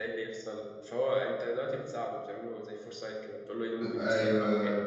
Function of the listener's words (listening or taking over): listening